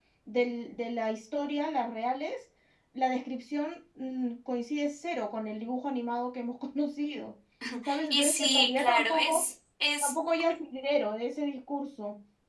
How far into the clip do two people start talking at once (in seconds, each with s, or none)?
8.1 s